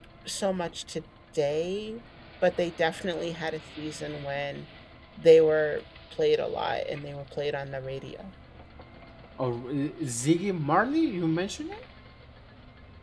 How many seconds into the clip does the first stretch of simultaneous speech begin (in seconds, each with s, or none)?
none